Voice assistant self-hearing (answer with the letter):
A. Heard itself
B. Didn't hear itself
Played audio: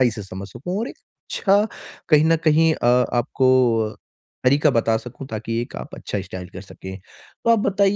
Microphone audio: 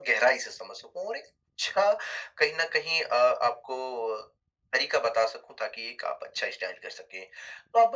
A